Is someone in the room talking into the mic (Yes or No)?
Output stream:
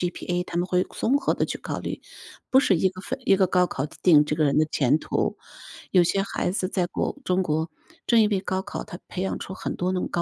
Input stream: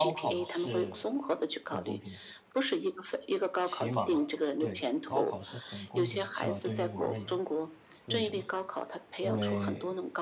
Yes